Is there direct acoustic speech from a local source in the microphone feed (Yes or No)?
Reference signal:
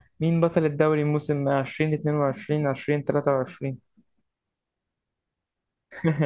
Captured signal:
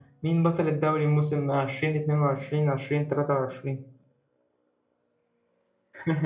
No